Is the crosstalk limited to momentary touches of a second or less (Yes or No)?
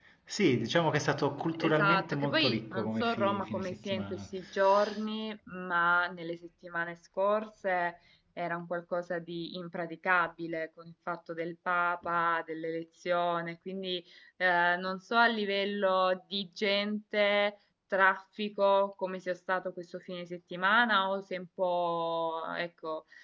No